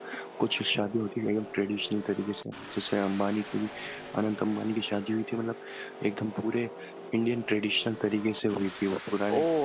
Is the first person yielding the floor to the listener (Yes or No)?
Yes